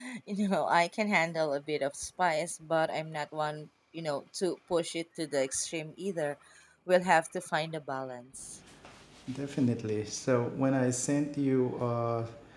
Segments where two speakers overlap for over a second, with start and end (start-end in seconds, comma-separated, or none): none